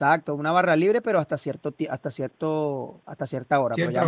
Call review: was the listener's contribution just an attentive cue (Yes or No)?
Yes